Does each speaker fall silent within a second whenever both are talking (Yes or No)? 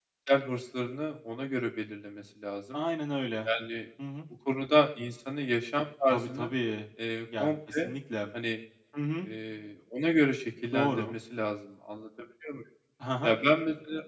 Yes